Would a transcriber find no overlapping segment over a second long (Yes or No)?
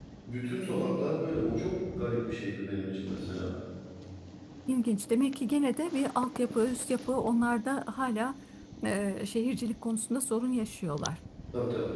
Yes